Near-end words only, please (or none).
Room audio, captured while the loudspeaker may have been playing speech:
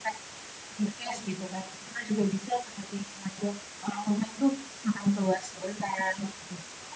none